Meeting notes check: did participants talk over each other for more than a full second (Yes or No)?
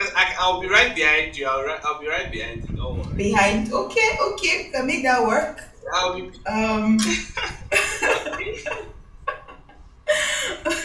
No